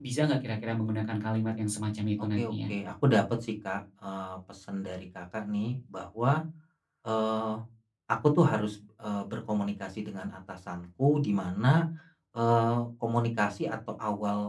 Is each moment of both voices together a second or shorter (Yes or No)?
Yes